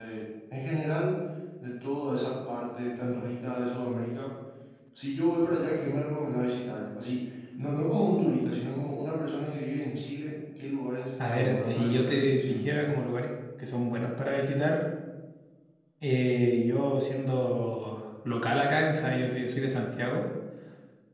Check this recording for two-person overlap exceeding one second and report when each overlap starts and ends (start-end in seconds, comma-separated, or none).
11.2-12.6